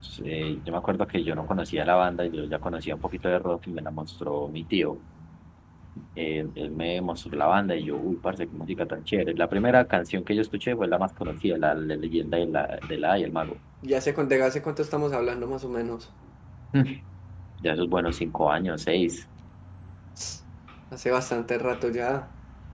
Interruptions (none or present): none